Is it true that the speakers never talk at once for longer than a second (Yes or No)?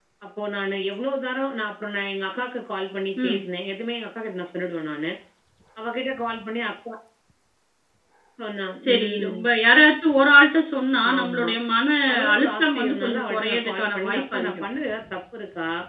No